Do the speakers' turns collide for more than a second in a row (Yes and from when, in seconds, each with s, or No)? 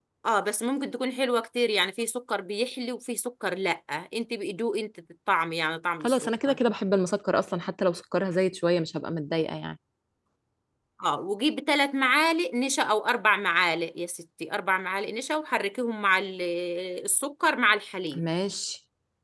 No